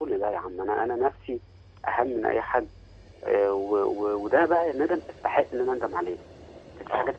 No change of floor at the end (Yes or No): Yes